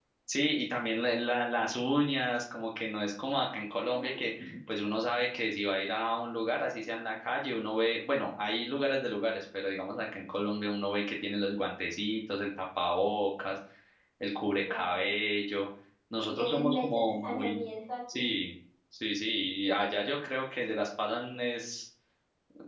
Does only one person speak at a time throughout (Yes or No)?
No